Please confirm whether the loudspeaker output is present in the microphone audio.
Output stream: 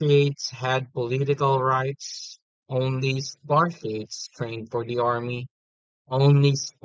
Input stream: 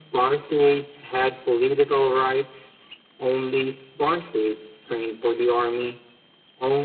Yes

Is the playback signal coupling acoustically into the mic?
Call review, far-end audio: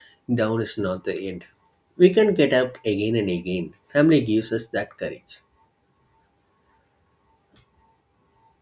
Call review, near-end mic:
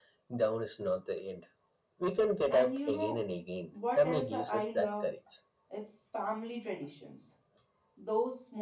Yes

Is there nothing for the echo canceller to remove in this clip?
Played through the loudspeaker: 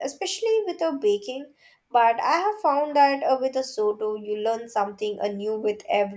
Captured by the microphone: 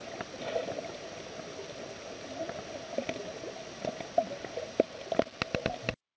Yes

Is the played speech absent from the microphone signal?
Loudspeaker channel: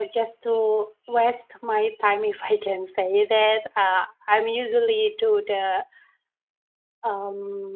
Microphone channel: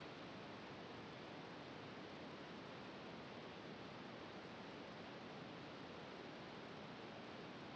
Yes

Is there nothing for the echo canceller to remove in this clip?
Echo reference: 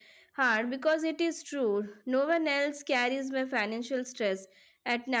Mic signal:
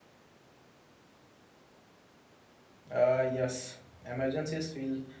Yes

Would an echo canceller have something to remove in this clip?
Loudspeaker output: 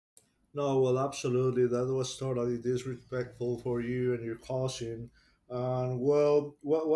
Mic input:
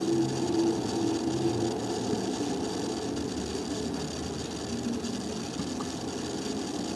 No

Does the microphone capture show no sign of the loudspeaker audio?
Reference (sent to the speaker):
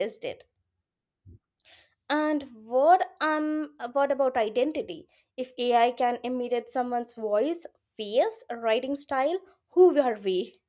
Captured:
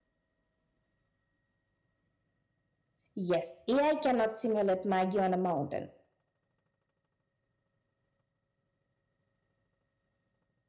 Yes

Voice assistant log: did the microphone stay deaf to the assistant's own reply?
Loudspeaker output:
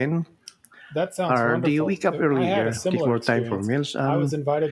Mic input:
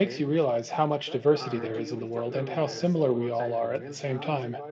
No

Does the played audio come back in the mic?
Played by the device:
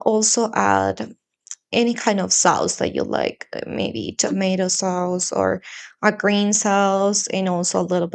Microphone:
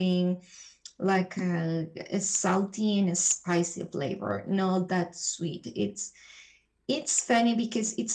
No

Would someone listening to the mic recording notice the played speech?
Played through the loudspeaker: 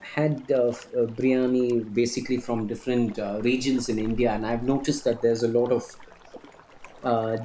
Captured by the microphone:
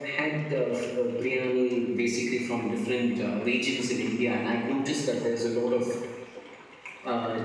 Yes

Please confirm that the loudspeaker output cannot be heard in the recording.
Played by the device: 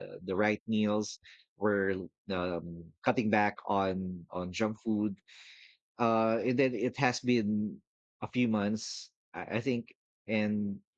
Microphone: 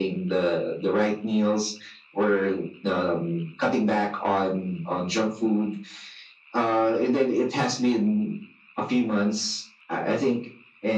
No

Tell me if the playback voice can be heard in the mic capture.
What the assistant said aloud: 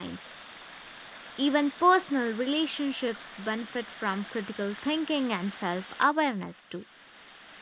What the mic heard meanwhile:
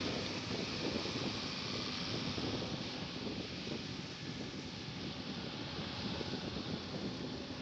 No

